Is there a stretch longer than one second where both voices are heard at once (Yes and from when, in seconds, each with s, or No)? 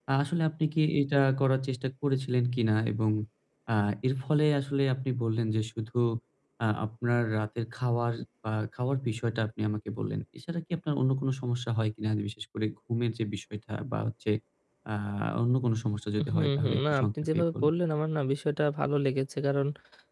Yes, from 16.2 s